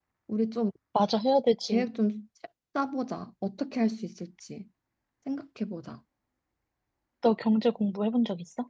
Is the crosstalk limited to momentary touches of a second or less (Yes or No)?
Yes